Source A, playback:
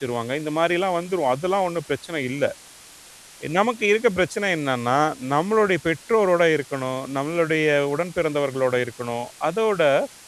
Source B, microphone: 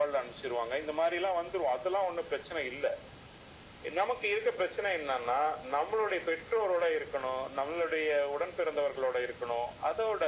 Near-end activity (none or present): none